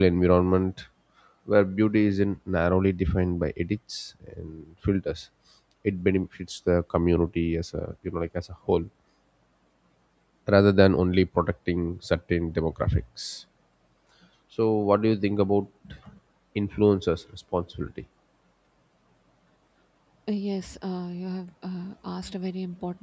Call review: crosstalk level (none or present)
none